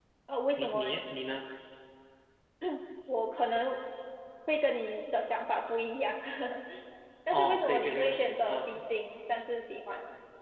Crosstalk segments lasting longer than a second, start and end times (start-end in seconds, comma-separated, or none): 7.3-8.8